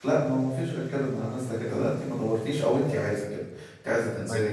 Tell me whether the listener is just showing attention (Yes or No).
Yes